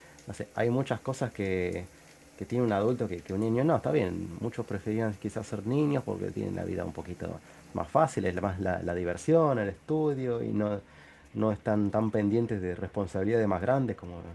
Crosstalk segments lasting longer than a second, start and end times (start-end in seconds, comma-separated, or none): none